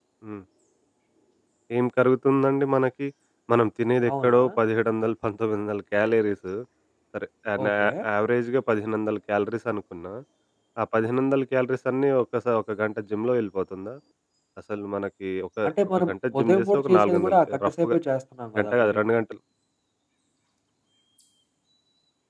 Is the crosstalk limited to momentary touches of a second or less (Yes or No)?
No